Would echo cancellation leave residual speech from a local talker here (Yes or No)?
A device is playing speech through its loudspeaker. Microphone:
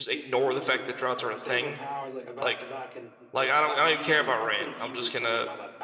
Yes